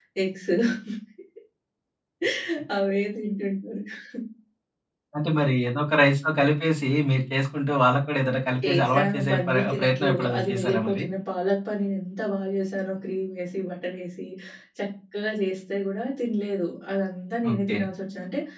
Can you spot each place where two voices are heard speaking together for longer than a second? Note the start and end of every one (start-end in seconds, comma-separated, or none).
8.6-11.0